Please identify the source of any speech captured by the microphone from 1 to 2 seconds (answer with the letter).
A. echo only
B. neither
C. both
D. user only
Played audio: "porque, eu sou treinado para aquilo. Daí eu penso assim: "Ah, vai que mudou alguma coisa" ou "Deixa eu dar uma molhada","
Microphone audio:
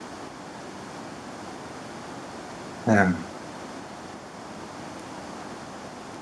B